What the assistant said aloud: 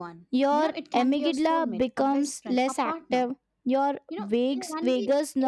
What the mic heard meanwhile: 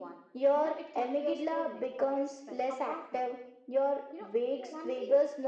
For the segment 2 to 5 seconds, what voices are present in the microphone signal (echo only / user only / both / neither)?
echo only